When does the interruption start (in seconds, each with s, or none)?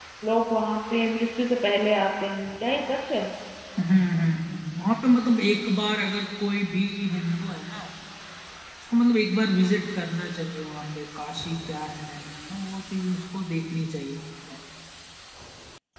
none